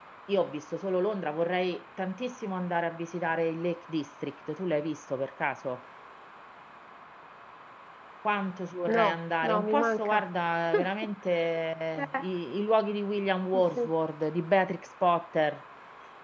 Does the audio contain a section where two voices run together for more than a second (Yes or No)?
Yes